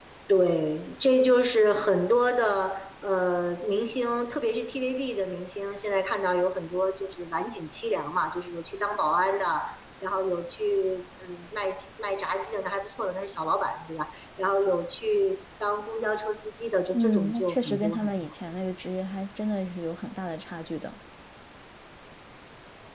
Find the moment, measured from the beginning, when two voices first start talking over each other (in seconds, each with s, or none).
16.9 s